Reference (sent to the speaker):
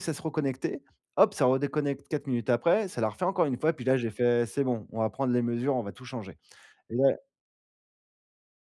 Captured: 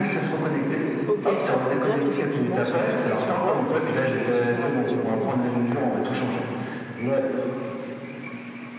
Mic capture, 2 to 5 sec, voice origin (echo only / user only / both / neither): both